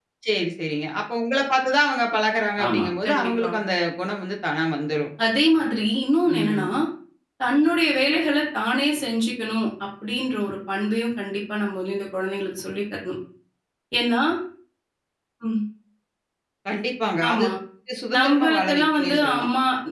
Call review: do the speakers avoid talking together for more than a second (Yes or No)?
No